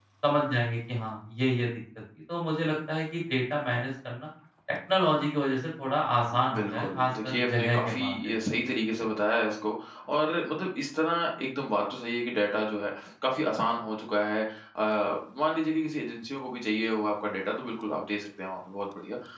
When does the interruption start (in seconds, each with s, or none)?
6.3 s